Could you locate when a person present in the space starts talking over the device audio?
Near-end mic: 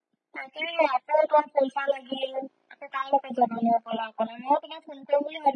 none

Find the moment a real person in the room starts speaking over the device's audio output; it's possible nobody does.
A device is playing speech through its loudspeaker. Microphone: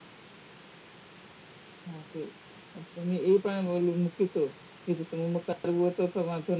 none

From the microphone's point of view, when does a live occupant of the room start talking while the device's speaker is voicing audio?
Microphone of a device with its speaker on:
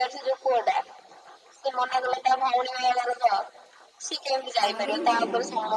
4.6 s

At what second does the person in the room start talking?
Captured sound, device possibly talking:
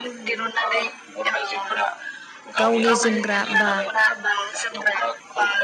2.6 s

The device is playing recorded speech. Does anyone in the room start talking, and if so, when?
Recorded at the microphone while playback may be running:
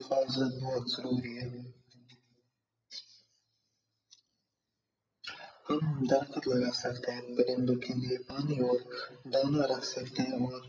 none

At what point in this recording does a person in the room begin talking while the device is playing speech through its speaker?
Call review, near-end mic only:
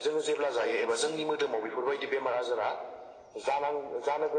0.7 s

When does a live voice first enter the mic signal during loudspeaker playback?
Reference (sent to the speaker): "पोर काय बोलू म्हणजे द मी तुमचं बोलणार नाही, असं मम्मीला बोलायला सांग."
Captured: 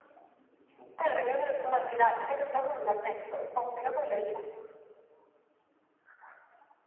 none

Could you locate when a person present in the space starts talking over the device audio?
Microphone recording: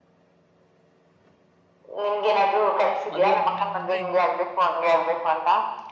3.1 s

